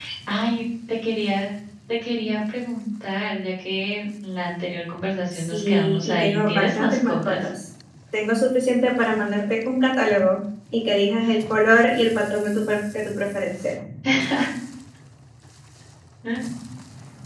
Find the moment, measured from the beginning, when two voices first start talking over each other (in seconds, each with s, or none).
5.3 s